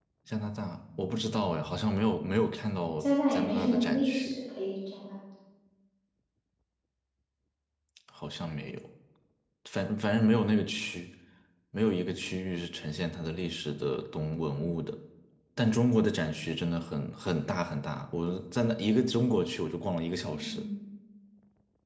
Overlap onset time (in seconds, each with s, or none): 3.0 s